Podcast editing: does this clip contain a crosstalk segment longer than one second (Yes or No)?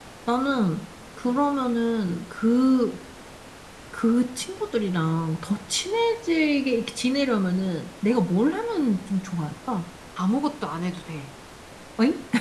No